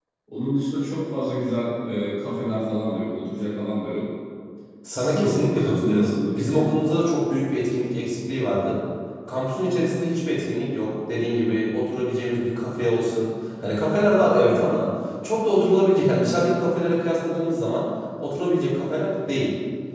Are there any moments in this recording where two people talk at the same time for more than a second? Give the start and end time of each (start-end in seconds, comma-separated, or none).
4.9-6.7